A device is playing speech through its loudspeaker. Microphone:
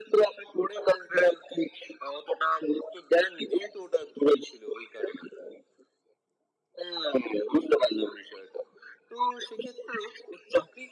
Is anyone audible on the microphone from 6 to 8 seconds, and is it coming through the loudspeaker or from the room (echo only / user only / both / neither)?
echo only